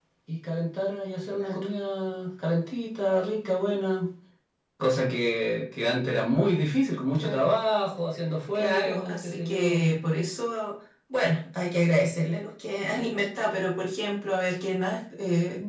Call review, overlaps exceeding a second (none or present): present